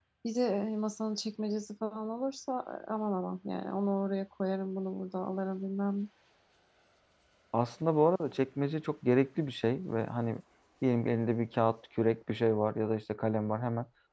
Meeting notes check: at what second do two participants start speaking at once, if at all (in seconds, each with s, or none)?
none